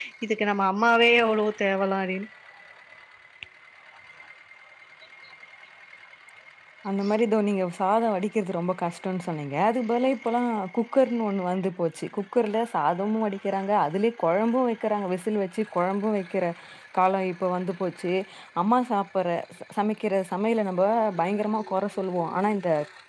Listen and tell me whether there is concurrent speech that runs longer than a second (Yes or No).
No